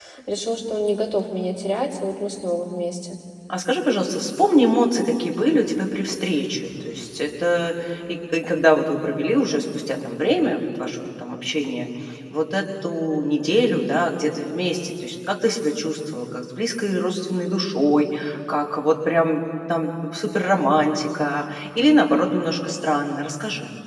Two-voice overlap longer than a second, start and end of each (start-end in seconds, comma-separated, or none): none